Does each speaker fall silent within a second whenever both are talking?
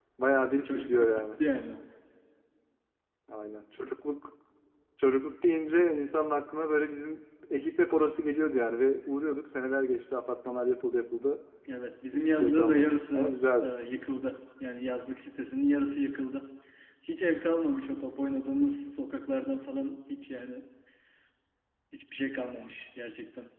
No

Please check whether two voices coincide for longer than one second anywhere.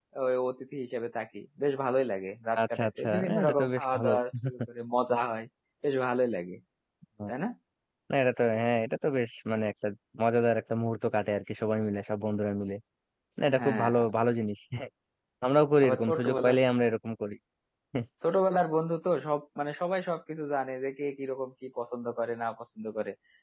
Yes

